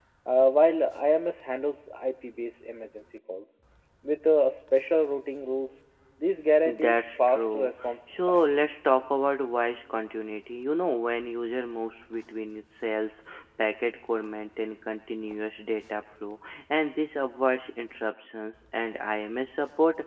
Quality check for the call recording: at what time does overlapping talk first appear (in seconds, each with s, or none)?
6.7 s